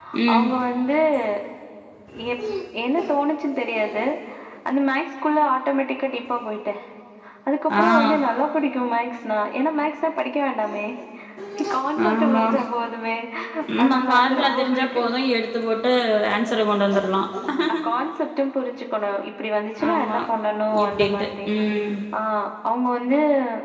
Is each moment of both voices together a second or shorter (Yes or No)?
No